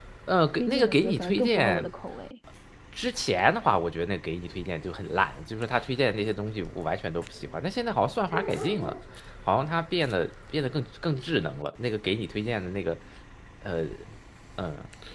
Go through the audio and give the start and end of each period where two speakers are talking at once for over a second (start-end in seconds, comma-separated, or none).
0.5-1.9